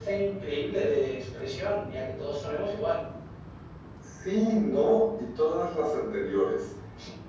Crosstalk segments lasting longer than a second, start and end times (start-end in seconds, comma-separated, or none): none